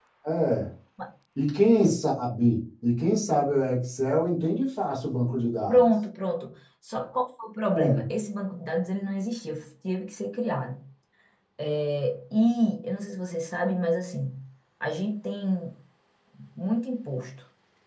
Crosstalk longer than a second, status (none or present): none